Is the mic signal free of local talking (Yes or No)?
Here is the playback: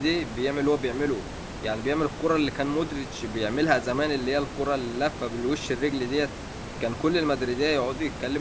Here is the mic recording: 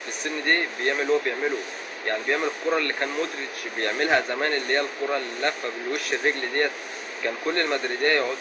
Yes